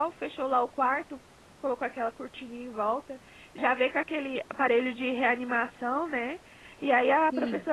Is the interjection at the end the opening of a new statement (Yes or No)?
No